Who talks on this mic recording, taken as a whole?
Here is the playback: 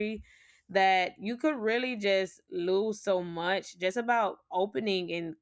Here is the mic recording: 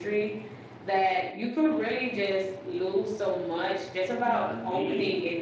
both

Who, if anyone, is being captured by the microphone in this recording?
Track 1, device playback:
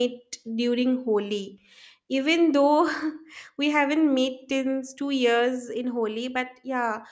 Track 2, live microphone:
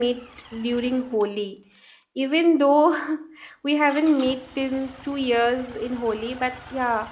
echo only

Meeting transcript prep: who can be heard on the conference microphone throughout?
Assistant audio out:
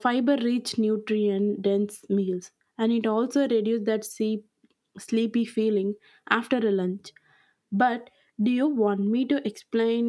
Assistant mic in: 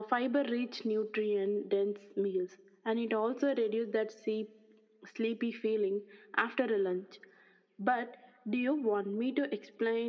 echo only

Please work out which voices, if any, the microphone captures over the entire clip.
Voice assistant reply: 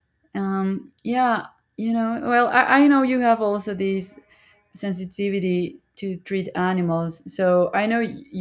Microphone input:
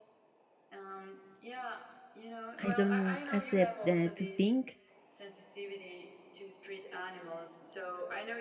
both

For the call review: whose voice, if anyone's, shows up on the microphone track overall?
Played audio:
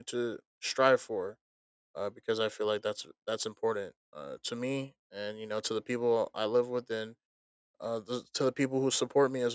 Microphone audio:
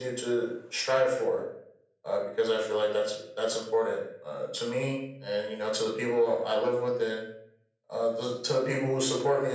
echo only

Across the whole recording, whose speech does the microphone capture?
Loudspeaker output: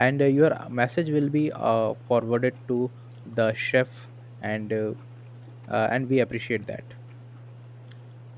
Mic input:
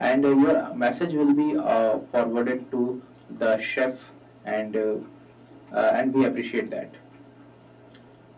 echo only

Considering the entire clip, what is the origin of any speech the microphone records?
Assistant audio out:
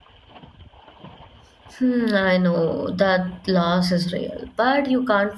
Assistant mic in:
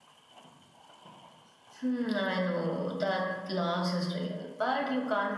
echo only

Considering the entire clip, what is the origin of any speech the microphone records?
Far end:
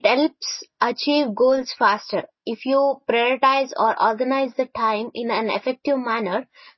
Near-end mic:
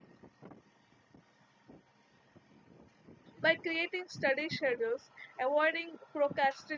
user only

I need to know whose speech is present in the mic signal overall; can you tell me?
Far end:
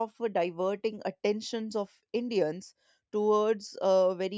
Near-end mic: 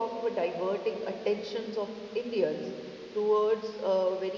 echo only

